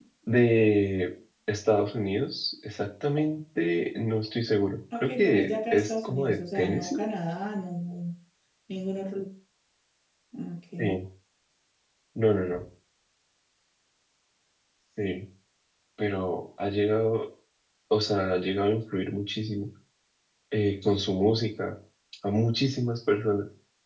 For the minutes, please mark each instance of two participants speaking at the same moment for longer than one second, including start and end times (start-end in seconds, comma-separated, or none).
5.0-7.0